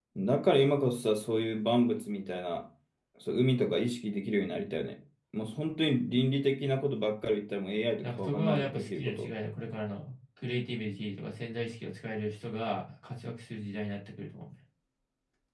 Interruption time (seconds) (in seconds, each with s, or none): 8.0 s